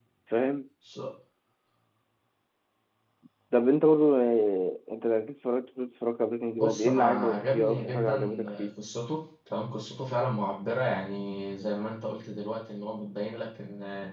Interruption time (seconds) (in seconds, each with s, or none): 6.6 s